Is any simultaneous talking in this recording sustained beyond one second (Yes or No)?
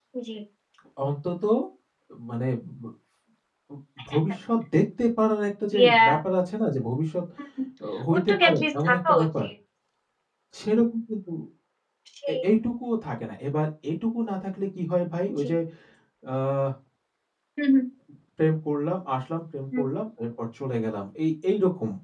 Yes